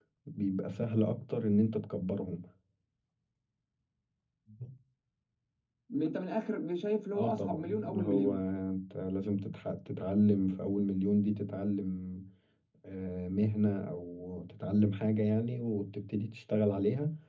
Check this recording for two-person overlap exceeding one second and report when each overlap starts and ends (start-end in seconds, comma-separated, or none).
7.1-8.3